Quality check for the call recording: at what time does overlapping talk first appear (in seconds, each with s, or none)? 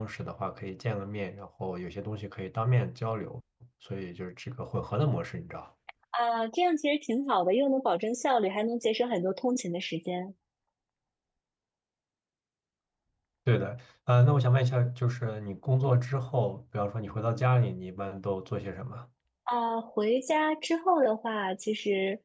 none